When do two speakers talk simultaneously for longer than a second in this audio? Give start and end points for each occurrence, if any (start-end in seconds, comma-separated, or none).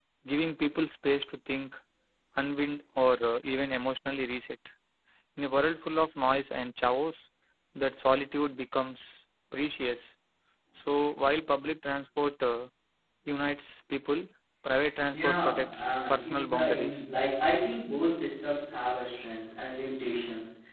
15.1-17.0